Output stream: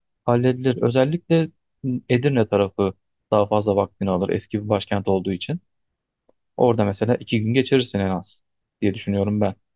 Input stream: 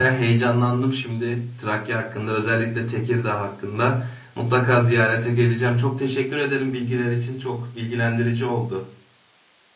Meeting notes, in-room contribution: present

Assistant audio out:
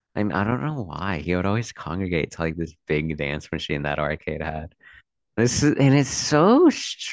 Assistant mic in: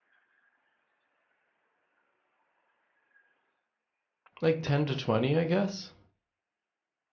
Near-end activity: present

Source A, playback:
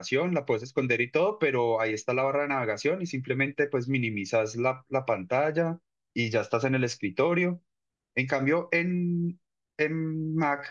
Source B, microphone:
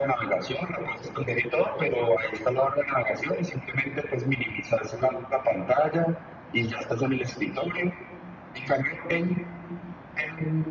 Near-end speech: none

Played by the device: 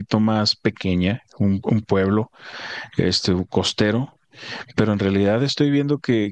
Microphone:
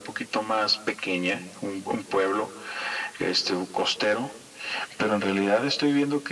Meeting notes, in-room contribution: none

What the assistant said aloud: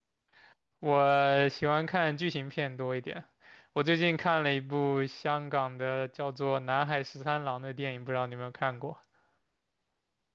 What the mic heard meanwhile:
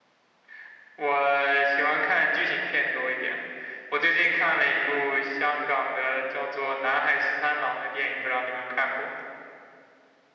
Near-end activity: none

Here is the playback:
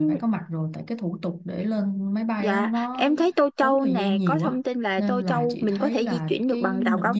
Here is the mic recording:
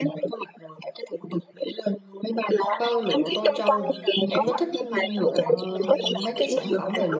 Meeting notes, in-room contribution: present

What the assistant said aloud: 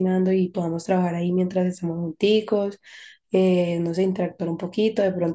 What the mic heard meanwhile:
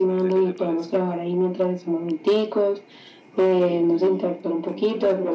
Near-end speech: present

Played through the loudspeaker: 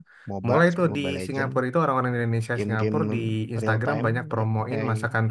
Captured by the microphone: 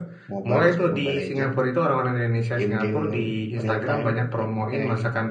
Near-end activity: none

